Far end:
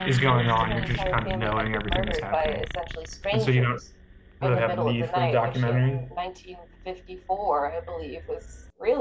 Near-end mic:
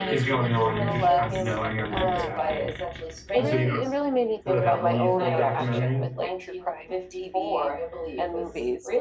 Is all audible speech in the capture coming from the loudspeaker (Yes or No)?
No